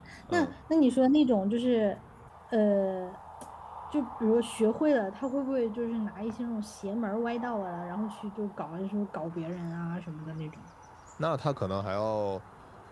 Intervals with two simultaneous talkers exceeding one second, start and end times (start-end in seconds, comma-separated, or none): none